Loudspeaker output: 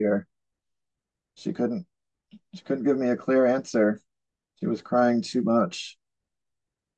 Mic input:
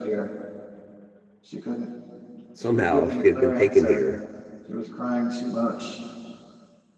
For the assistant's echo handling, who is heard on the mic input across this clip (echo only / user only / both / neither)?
both